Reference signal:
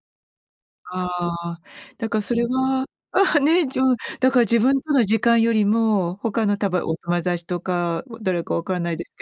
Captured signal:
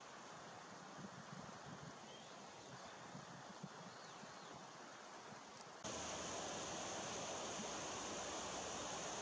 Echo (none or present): none